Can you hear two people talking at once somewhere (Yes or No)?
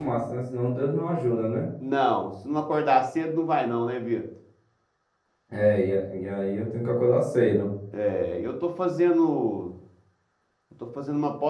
No